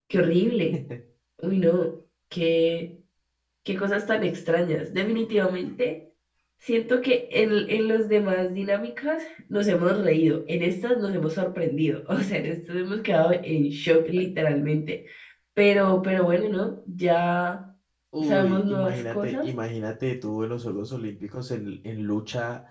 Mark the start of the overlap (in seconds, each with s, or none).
18.2 s